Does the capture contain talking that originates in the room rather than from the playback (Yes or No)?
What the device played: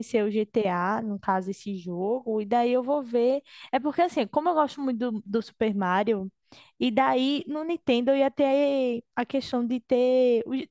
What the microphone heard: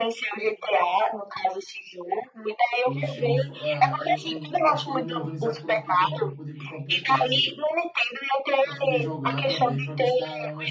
Yes